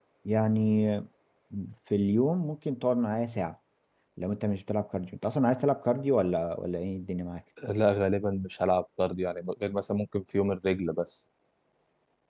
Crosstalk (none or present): none